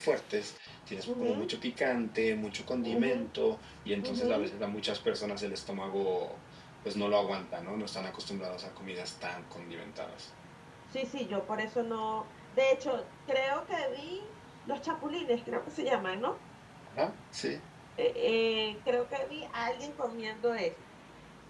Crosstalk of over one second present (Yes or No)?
No